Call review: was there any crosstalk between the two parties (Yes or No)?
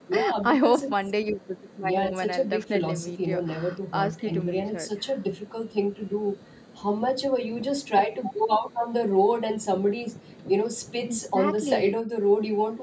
Yes